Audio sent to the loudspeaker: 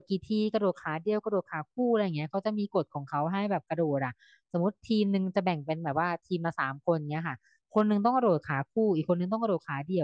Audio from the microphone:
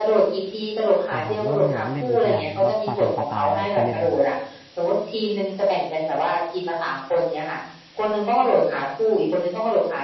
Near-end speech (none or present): present